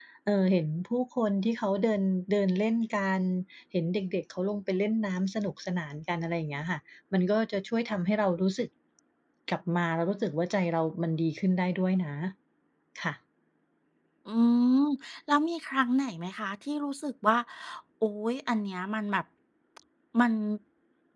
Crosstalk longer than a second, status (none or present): none